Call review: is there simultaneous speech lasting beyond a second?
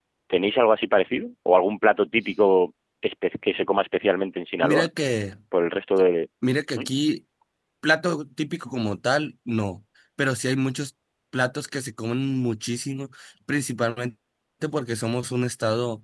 No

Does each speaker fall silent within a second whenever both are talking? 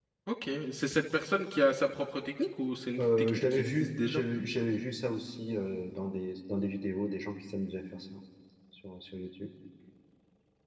No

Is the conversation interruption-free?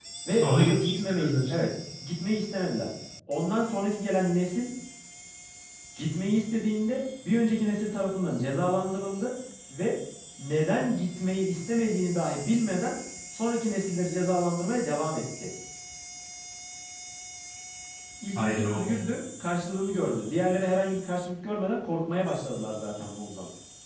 No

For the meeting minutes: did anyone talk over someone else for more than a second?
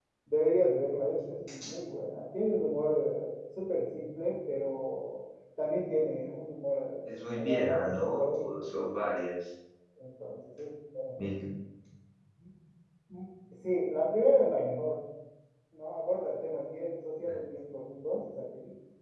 Yes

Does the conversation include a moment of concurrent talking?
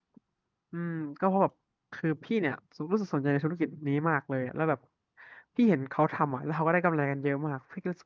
No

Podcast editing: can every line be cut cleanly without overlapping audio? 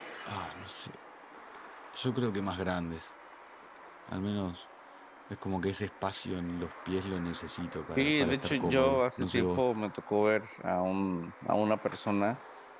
No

